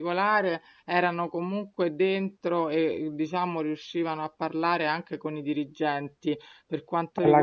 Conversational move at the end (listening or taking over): listening